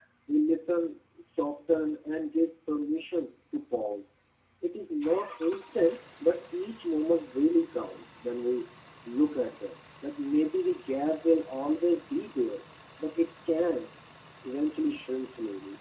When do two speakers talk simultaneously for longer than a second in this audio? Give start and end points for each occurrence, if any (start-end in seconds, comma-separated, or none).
none